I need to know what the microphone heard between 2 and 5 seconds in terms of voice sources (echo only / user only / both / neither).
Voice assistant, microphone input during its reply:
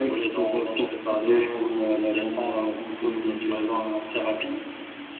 both